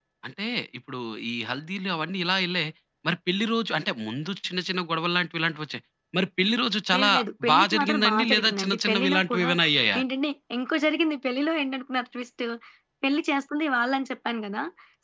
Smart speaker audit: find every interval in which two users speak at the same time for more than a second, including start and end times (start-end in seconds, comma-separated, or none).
7.5-9.5